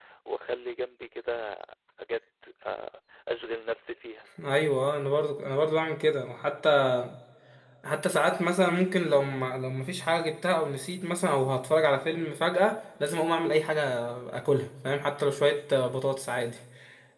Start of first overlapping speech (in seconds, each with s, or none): none